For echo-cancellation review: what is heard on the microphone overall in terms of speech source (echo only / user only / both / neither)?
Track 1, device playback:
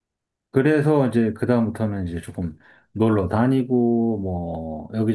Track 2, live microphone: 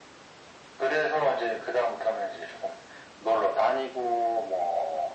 echo only